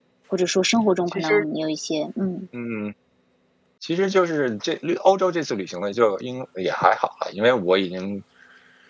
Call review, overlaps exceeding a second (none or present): none